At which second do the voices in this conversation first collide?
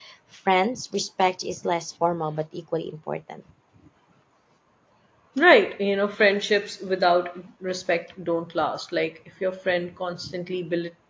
none

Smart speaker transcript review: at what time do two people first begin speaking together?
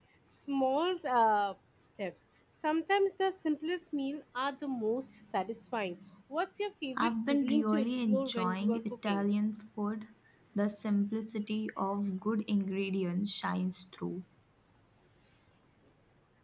7.0 s

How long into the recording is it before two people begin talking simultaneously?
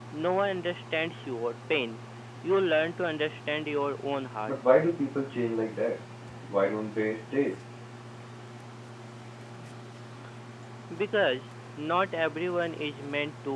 none

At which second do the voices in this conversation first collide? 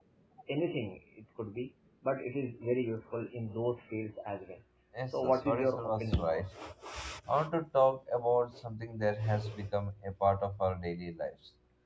5.1 s

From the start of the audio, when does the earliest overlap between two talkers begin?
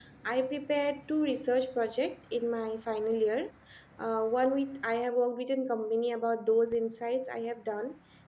none

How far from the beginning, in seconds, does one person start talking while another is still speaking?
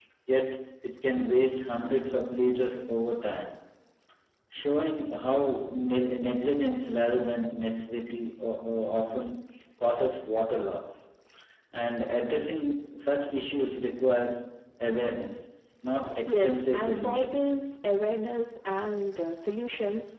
16.3 s

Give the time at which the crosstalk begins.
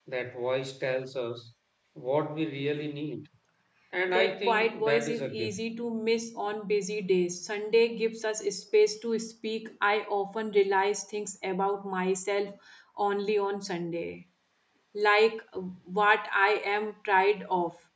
4.1 s

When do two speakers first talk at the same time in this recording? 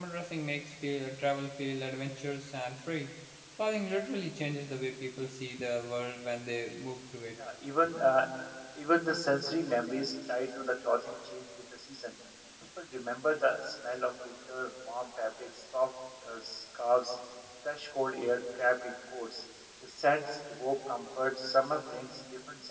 none

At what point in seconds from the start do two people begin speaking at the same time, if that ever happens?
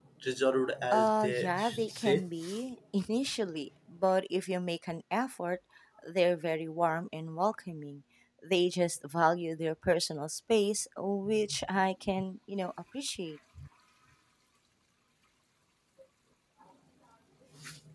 0.9 s

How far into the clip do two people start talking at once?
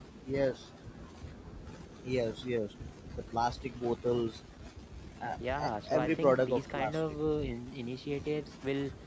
5.6 s

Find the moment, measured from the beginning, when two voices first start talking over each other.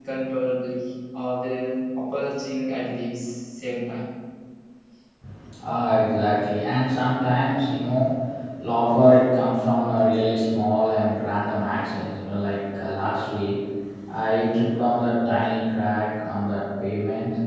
none

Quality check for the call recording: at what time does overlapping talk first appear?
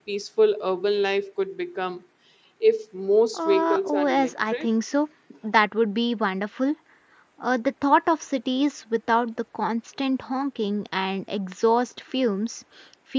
3.3 s

